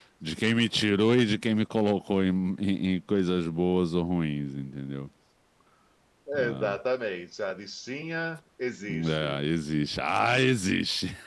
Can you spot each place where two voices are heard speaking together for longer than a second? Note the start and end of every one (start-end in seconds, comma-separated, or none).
none